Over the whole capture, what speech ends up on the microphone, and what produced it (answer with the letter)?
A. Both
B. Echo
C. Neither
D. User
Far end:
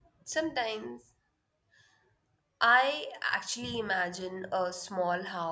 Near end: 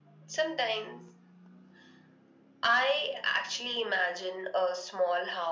B